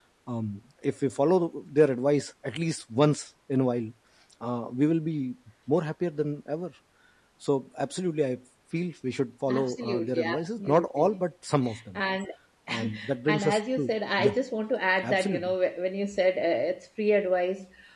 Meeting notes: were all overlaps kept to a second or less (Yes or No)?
No